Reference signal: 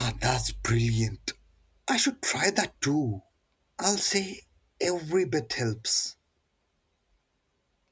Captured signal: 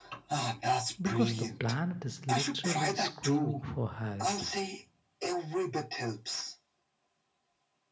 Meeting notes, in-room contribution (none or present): present